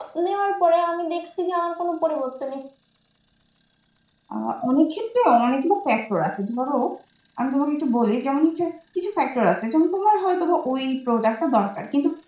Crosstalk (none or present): none